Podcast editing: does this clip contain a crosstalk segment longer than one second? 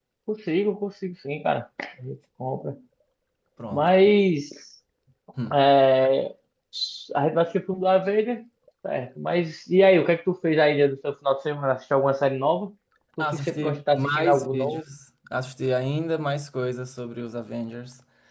Yes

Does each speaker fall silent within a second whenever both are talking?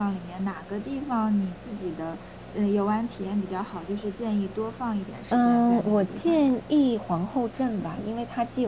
No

